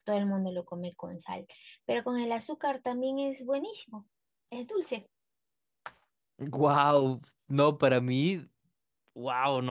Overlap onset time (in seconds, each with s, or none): none